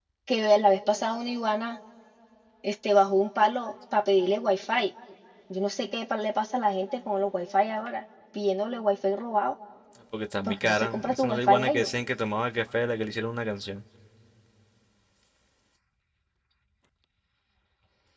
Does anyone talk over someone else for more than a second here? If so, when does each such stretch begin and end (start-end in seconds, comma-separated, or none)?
10.4-11.9